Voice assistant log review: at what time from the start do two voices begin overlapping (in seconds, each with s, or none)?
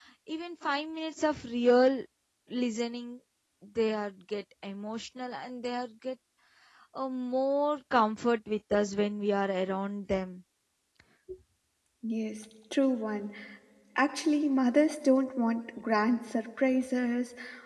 none